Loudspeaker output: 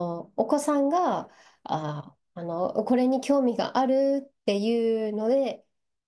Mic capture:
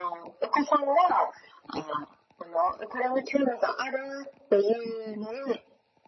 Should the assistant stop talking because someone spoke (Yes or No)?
No